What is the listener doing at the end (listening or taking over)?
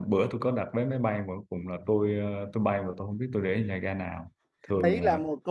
taking over